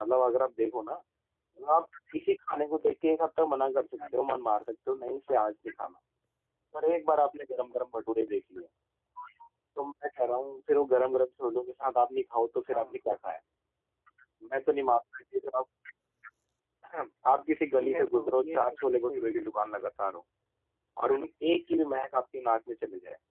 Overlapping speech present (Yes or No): Yes